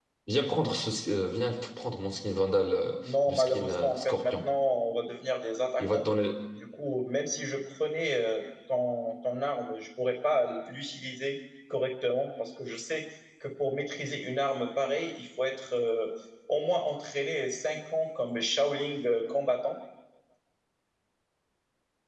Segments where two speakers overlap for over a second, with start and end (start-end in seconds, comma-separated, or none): 3.0-4.5